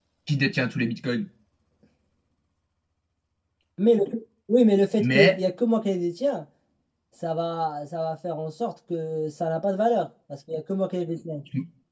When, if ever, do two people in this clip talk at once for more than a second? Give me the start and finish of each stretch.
none

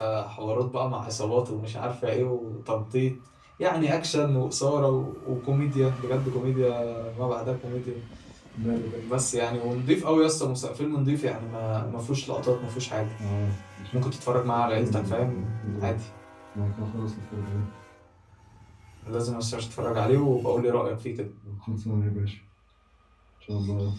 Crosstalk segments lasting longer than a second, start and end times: 14.5-15.9

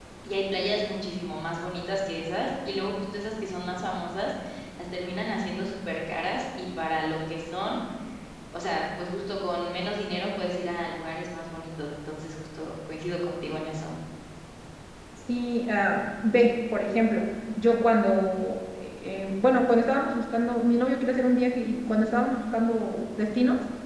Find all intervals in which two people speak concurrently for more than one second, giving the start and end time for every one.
none

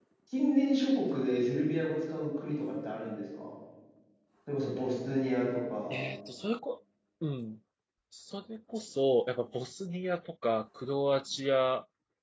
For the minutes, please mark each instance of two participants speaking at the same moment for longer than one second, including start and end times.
none

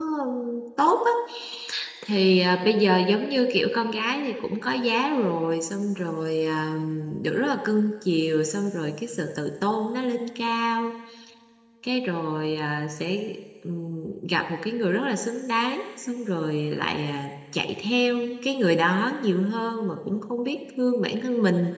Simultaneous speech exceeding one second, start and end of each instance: none

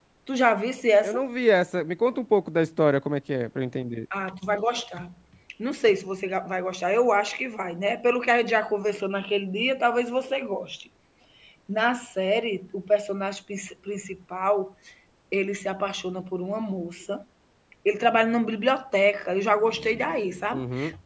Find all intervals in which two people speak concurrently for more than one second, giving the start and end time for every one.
none

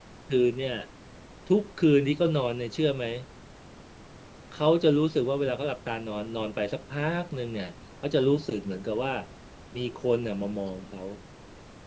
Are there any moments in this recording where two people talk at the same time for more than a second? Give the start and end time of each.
none

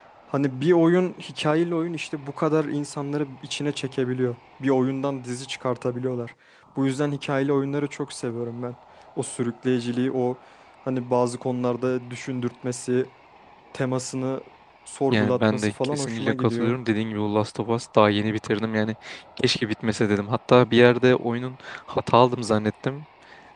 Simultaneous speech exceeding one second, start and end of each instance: 15.1-16.7

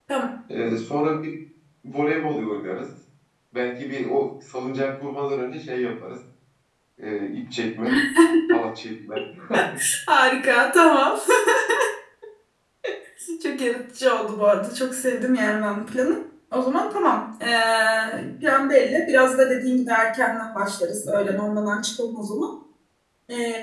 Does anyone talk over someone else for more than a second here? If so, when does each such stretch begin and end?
none

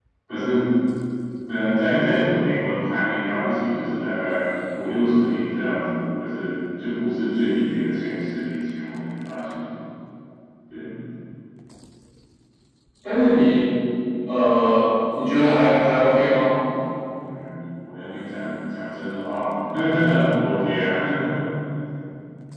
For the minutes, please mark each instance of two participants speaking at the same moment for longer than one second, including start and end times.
none

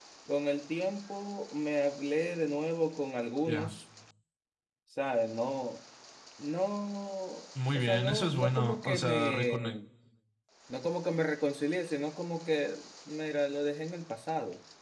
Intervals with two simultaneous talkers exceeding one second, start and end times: 7.7-9.8

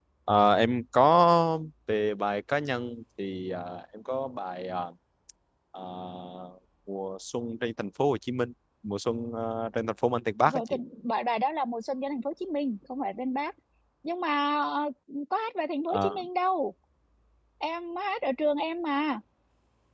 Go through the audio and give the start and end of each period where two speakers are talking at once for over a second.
none

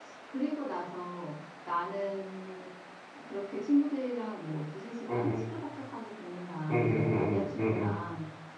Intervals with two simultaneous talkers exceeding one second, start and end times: 6.7-8.0

